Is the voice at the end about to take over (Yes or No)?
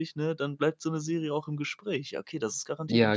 Yes